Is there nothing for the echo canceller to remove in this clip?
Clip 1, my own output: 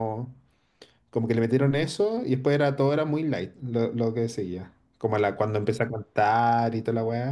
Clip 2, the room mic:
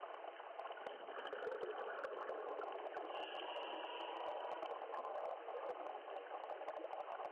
Yes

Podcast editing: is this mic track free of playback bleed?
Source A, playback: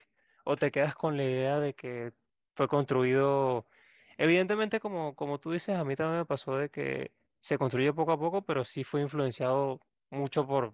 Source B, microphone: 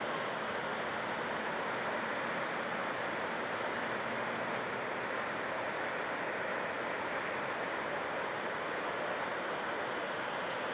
Yes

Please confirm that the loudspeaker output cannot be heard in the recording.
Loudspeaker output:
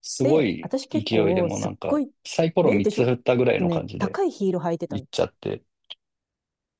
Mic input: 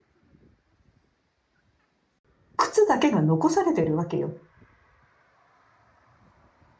Yes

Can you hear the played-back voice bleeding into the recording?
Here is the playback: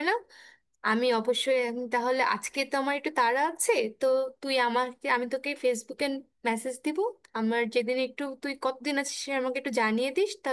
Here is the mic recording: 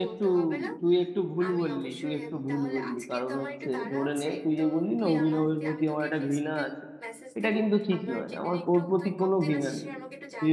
Yes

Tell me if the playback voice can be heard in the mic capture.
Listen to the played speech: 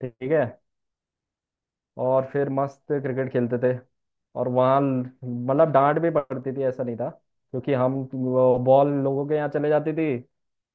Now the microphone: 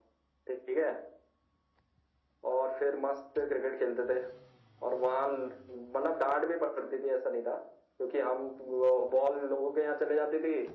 Yes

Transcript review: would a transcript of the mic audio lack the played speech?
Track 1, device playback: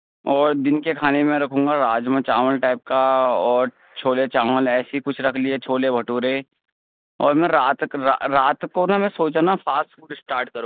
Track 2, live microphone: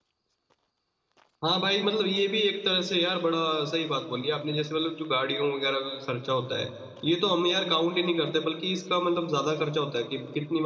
Yes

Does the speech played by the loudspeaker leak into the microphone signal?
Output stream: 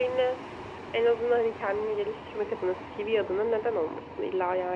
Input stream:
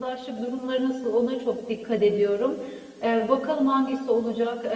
No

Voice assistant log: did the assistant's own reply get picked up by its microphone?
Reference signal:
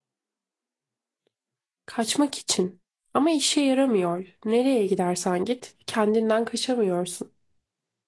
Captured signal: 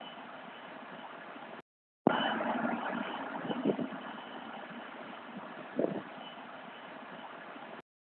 No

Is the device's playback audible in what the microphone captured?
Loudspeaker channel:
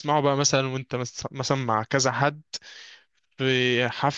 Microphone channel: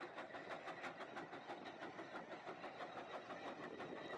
No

